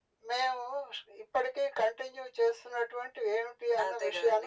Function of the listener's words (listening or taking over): taking over